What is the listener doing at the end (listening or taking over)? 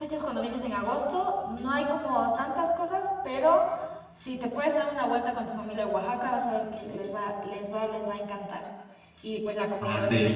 listening